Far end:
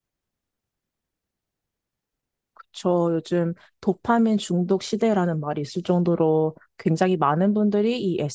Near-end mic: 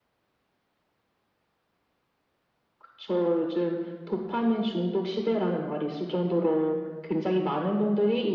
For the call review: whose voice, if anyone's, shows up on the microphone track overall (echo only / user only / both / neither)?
echo only